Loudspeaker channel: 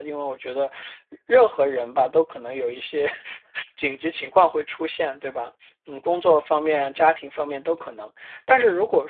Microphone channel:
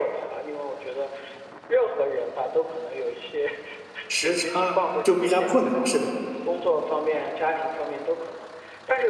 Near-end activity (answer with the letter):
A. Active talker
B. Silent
A